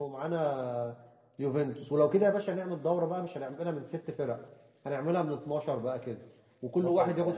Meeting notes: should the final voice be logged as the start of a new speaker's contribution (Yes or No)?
No